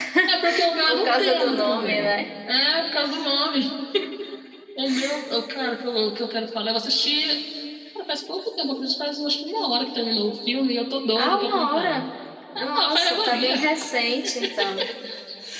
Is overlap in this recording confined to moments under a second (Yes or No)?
No